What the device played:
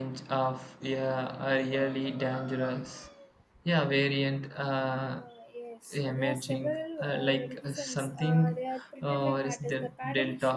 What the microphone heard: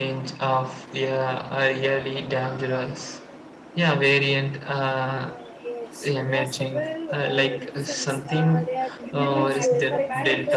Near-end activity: present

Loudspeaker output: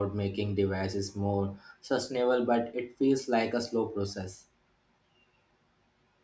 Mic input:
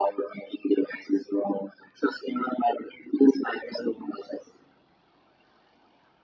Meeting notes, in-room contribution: none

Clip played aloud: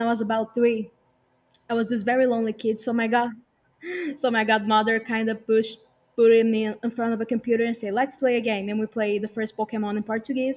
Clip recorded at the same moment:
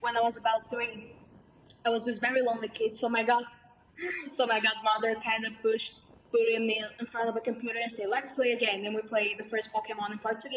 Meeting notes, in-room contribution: none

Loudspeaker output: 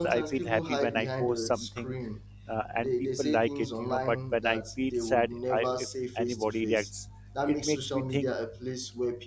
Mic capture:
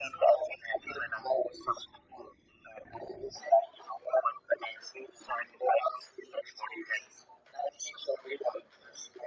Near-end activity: none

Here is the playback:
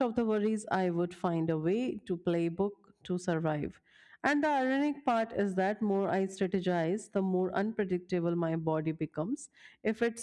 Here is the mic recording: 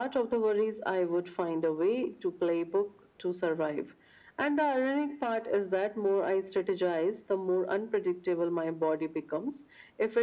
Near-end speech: none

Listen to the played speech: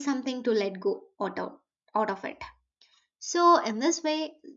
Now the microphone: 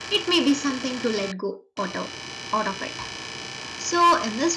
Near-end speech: none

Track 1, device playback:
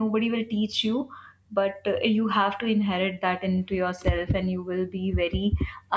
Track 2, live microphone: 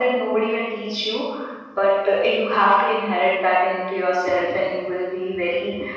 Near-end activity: none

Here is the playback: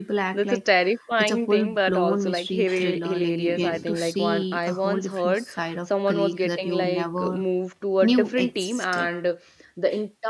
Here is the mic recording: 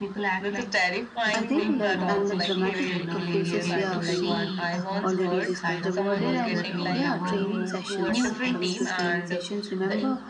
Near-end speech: present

